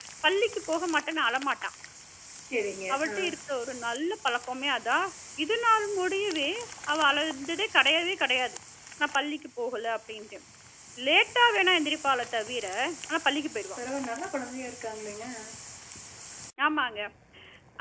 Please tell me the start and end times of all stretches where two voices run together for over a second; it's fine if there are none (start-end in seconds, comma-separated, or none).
none